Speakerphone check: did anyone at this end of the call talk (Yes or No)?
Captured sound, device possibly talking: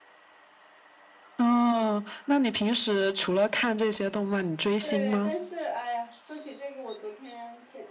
Yes